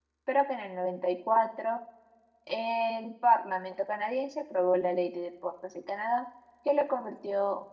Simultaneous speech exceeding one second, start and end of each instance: none

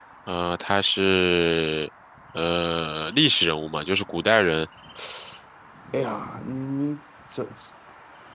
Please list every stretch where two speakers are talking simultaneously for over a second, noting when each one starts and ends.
none

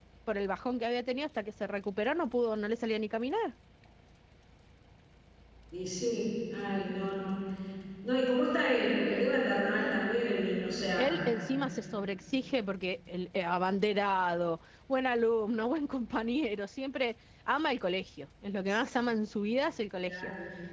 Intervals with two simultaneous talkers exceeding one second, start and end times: none

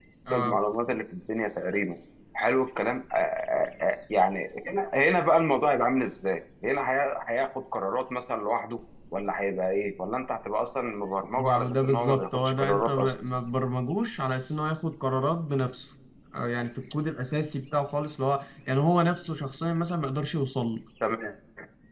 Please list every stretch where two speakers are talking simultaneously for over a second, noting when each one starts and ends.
11.4-13.1

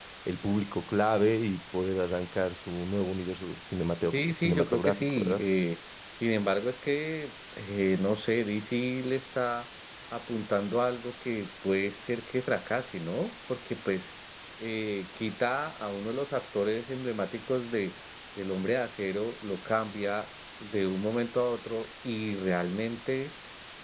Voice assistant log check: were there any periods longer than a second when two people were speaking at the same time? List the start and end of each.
4.1-5.4

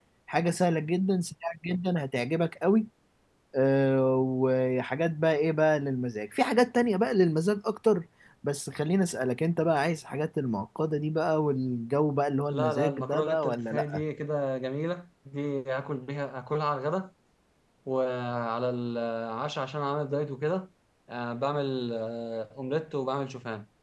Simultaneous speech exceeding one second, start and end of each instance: 12.5-14.0

